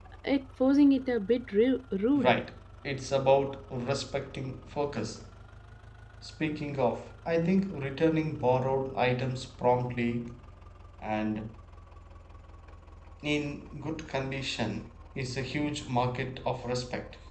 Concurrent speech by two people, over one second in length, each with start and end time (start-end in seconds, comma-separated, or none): none